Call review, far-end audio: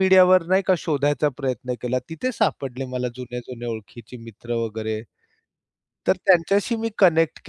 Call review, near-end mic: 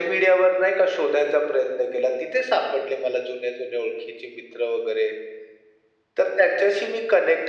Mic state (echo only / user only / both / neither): echo only